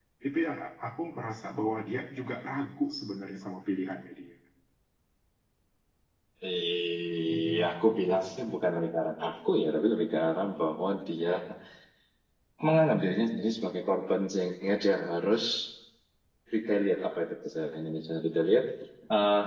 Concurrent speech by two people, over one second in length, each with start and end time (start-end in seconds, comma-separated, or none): none